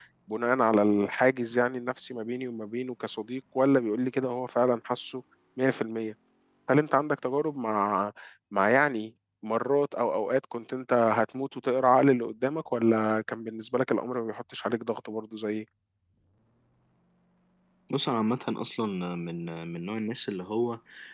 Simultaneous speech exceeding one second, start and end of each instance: none

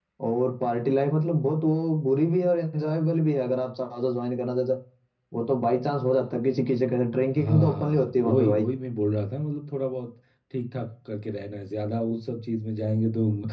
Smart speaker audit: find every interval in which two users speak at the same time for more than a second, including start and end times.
7.3-8.7

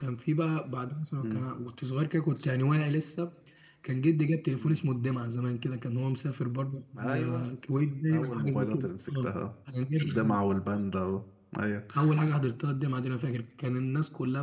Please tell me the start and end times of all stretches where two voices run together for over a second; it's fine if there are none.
8.1-9.3

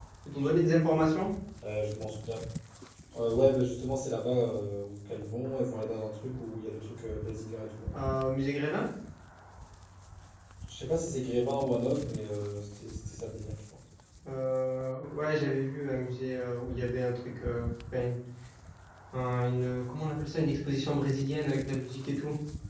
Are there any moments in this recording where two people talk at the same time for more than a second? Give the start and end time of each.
none

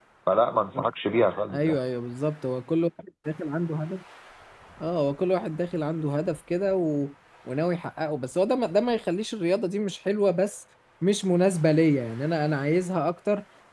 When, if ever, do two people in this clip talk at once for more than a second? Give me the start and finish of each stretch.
none

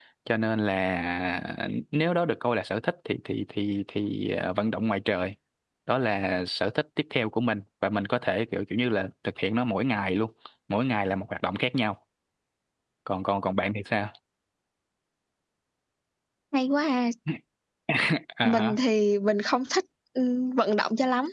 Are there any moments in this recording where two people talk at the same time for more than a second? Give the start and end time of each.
none

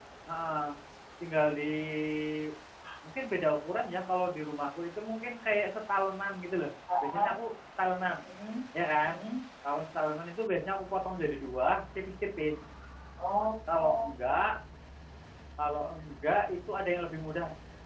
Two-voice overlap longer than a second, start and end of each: none

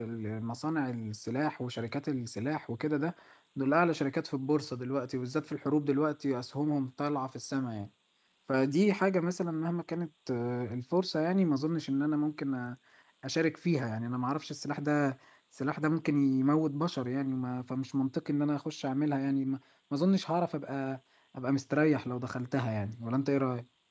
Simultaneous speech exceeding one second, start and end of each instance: none

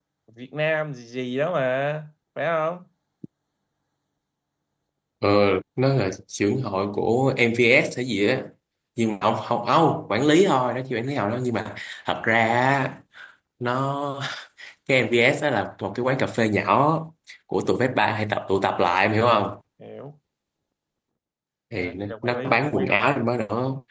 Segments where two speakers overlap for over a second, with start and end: 21.7-23.1

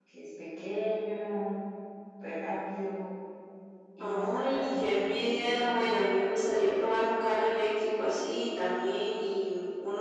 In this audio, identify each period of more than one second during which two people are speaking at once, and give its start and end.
4.0-5.9

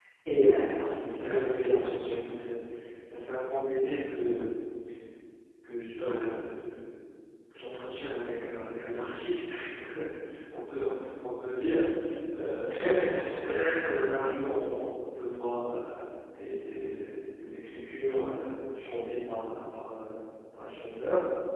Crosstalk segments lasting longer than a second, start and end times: 0.8-2.2

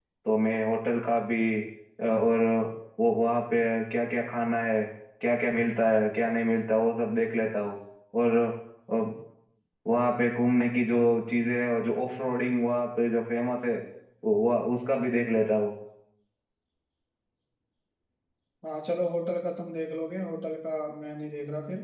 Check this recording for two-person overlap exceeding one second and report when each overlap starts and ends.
none

